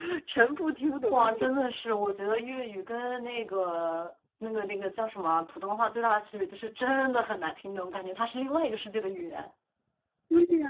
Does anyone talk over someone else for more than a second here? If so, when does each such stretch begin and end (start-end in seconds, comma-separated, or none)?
none